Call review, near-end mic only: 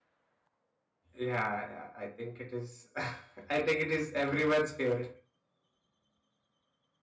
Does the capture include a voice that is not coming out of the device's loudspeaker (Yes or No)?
Yes